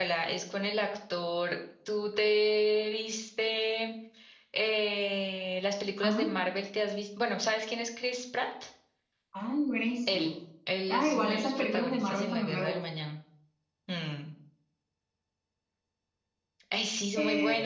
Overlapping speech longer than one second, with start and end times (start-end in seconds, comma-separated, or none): 10.9-12.8